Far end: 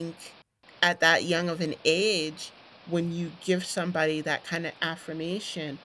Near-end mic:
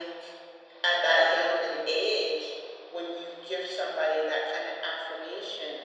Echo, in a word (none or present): present